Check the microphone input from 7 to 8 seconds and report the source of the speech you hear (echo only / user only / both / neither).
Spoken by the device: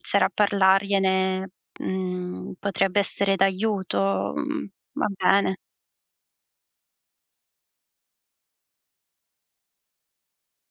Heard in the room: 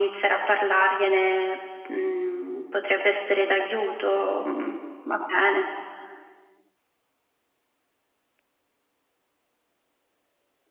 neither